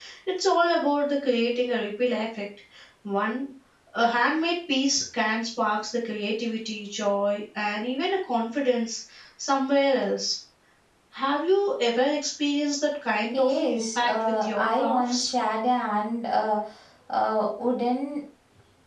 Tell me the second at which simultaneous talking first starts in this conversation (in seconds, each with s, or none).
13.3 s